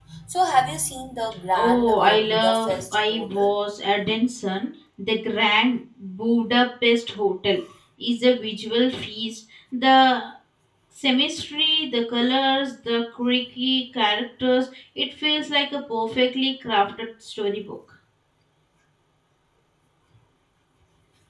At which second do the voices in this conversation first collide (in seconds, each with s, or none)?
1.5 s